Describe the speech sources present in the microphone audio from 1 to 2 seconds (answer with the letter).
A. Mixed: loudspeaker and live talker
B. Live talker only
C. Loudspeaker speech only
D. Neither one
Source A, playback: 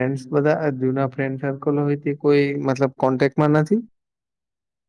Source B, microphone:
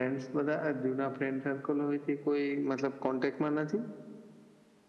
C